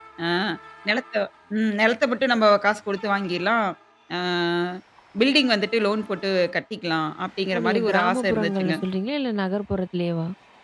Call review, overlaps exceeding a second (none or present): present